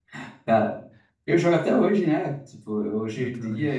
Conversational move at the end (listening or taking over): listening